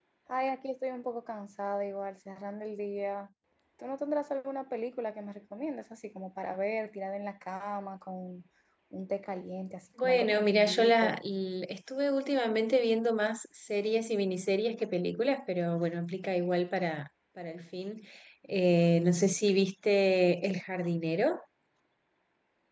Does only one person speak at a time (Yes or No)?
No